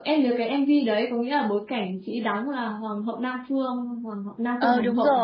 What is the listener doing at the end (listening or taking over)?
taking over